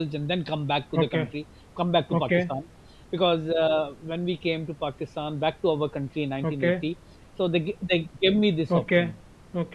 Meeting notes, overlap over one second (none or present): none